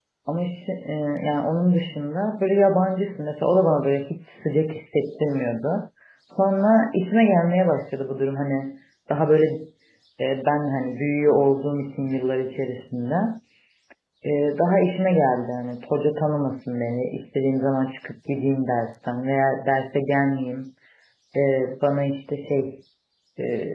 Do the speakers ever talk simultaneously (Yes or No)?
No